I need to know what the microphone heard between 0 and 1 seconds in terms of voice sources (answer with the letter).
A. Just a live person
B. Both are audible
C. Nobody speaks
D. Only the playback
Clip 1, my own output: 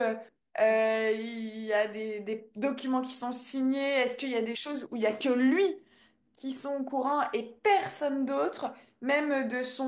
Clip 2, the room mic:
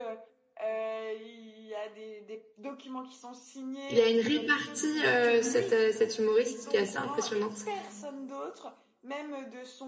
D